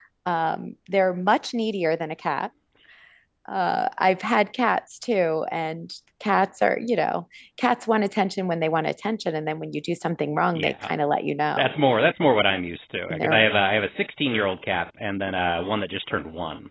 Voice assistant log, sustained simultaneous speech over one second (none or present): none